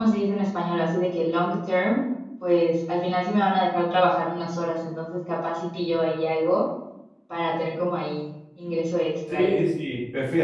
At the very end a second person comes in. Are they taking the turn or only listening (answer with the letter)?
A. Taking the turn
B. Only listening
A